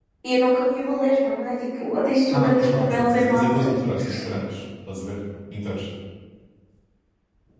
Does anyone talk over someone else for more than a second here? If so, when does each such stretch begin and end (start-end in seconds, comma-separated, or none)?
2.3-3.7